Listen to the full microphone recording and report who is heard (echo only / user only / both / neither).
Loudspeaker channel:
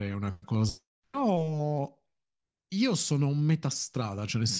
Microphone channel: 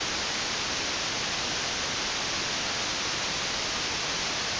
neither